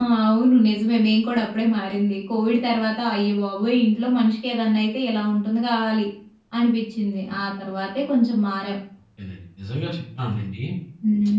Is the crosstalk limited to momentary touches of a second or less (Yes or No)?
Yes